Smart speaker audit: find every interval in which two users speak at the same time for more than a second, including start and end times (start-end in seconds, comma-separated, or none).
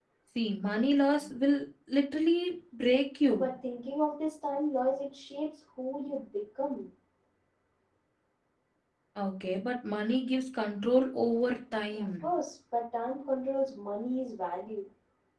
none